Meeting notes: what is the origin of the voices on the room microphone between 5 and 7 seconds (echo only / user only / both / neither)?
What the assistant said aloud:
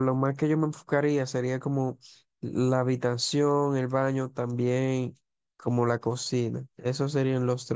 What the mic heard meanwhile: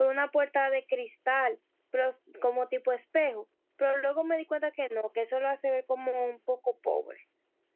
user only